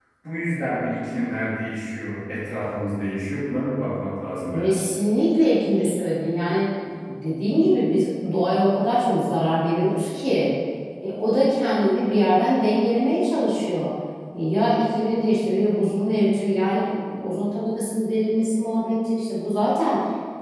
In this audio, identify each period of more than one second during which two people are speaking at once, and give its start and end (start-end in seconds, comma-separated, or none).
none